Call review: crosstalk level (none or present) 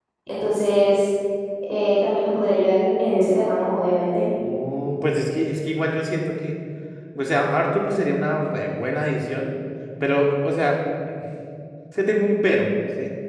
none